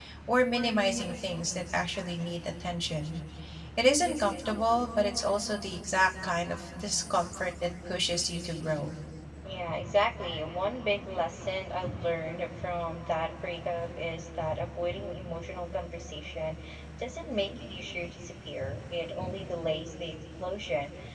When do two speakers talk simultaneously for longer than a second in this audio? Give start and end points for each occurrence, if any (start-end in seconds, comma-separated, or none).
none